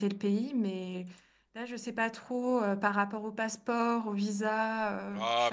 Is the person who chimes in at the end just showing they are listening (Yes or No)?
No